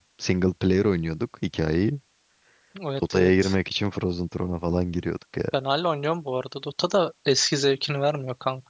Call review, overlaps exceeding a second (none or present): none